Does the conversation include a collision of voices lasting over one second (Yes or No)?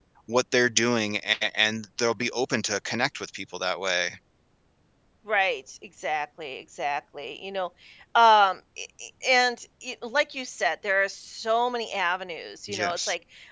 No